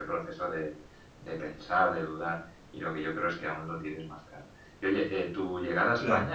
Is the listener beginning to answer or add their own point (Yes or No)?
No